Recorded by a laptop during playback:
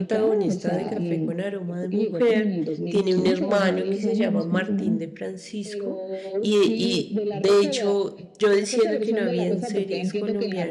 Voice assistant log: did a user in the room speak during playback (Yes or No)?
Yes